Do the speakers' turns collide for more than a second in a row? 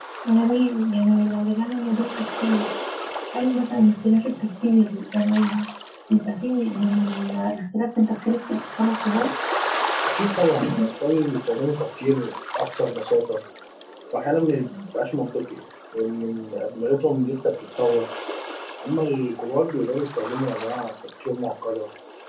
No

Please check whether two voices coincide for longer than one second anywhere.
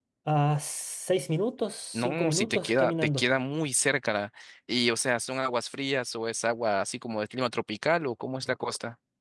Yes, from 1.9 s

